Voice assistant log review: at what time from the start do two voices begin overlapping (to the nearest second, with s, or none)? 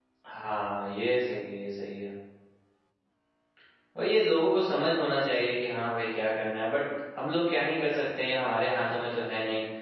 none